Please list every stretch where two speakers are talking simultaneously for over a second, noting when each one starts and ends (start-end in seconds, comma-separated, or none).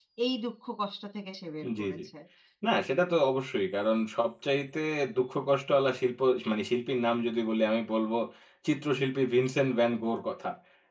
none